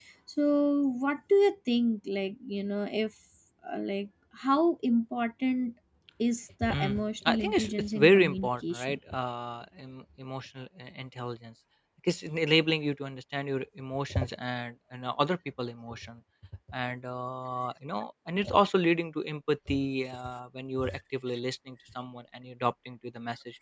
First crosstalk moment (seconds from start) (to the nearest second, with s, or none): 7 s